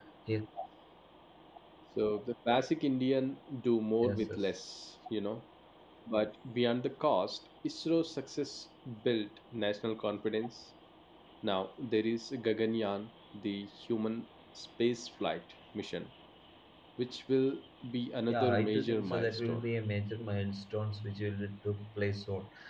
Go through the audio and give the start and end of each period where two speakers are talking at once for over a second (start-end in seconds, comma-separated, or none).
18.3-19.6